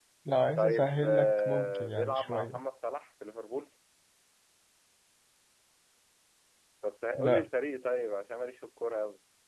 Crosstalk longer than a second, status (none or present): present